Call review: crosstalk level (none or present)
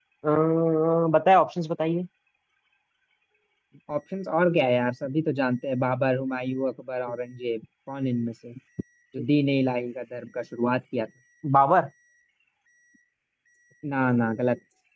none